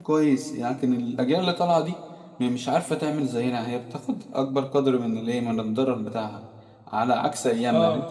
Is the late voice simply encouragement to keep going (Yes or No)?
Yes